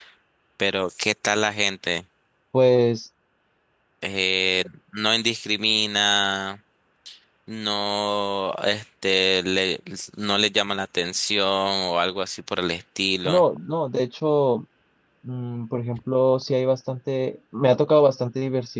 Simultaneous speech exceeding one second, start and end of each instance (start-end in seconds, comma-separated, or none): none